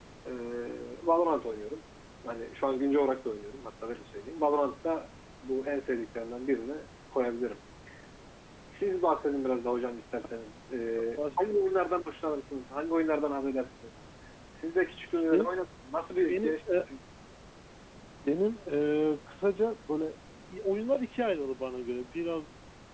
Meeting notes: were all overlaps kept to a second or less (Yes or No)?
Yes